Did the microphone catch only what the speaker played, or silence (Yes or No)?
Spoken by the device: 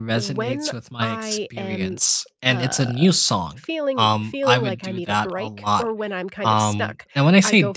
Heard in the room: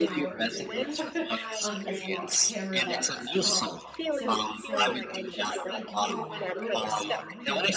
No